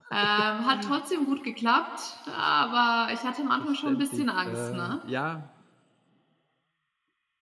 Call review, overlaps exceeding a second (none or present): present